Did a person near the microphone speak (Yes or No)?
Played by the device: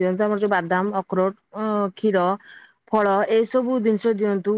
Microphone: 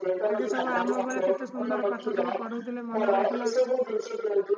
Yes